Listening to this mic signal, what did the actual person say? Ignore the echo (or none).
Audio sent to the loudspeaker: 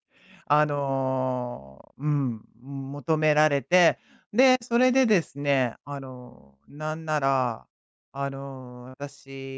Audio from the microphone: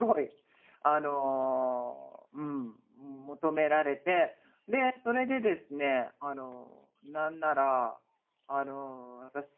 none